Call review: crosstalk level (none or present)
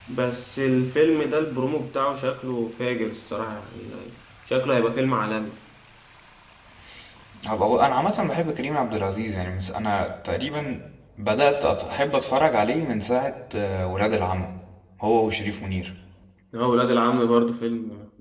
none